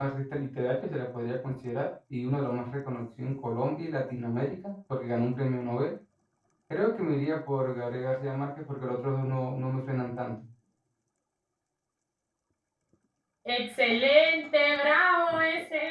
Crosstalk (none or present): none